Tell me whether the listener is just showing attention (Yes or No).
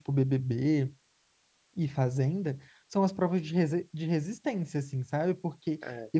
Yes